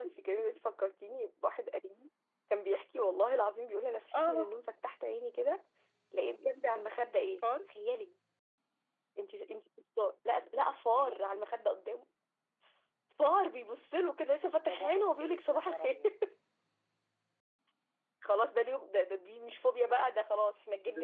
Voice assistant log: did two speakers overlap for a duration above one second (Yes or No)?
Yes